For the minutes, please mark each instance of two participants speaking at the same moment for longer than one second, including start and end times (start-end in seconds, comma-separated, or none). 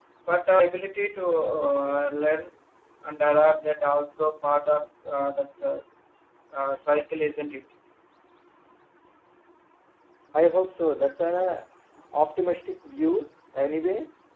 none